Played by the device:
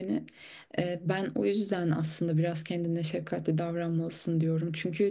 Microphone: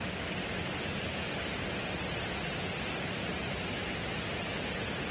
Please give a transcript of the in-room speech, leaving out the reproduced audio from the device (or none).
none